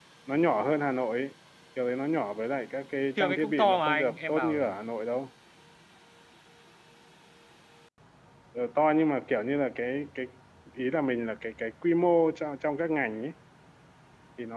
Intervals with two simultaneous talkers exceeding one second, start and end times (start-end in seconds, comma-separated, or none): 3.2-4.8